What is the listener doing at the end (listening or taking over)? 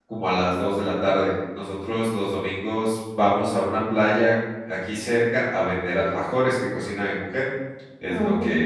listening